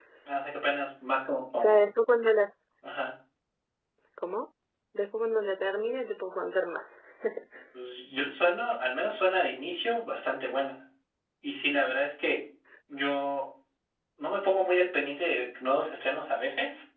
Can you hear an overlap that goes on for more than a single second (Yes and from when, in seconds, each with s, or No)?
No